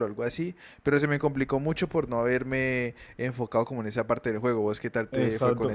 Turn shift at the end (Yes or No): Yes